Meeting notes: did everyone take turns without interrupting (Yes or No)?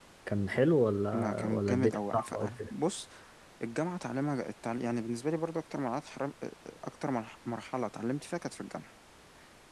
No